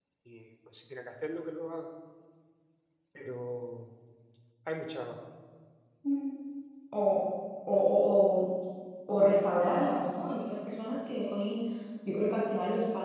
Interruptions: none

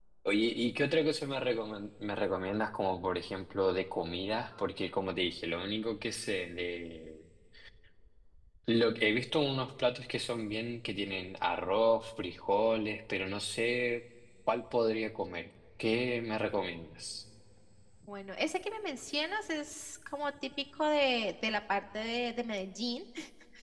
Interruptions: none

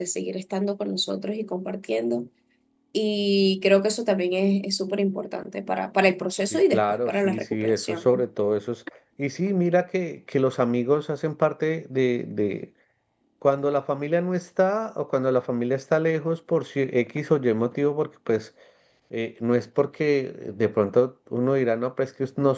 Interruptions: present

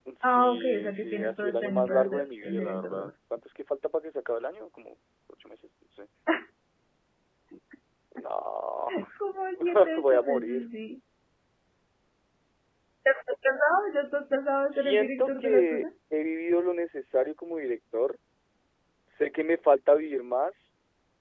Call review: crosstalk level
present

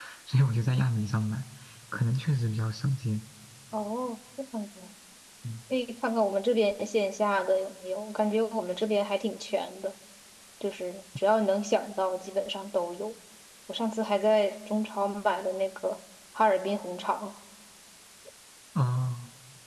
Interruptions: none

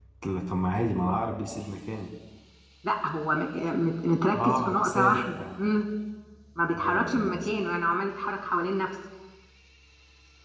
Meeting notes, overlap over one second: present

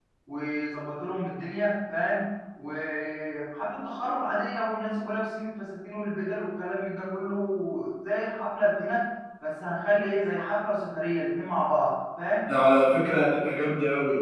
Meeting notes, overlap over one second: none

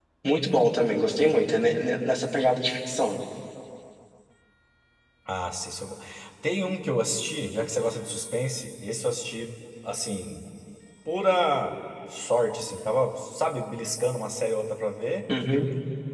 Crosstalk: none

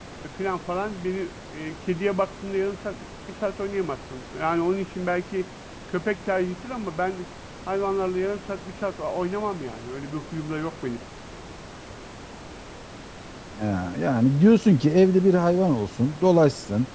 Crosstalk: none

